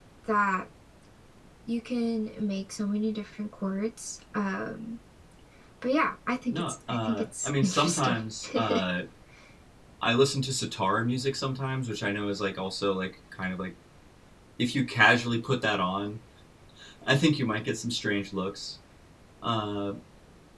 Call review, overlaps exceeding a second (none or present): present